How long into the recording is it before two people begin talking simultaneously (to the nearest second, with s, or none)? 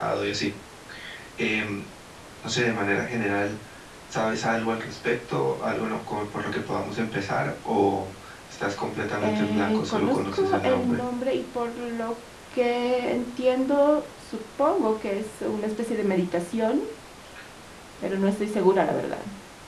9 s